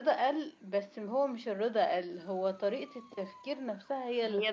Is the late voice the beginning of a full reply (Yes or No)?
Yes